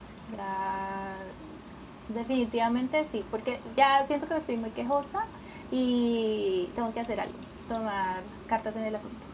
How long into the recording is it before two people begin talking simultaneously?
none

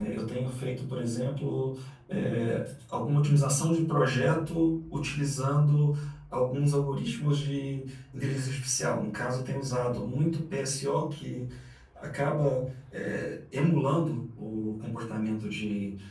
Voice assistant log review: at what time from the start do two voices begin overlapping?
none

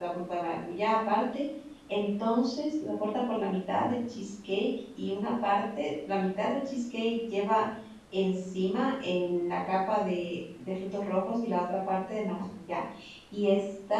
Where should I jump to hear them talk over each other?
none

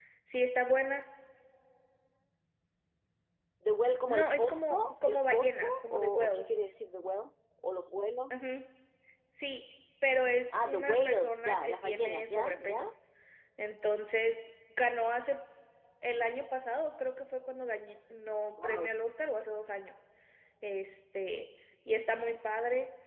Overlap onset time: 4.1 s

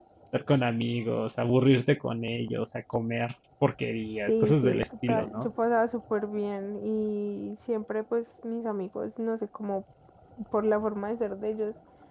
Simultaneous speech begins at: 4.3 s

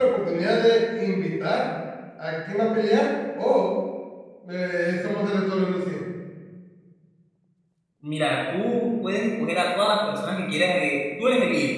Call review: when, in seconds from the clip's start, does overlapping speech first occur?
none

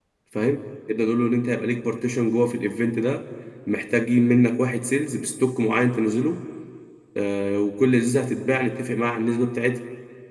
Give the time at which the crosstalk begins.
none

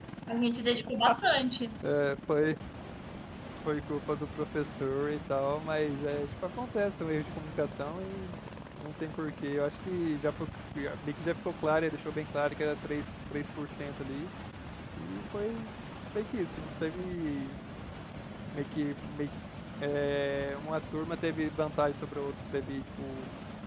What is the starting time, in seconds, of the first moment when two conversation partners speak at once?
none

